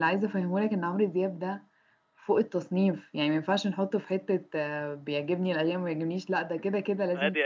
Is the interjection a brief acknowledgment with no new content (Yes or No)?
No